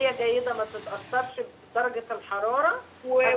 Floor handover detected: Yes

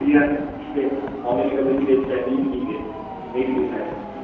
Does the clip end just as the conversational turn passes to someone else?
No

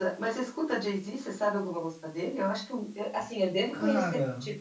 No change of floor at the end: Yes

